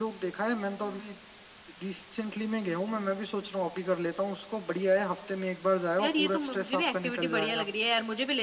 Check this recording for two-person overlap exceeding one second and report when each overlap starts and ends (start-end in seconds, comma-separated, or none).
6.0-7.6